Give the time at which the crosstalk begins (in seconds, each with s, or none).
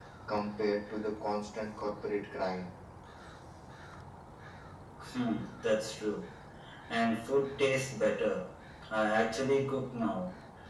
none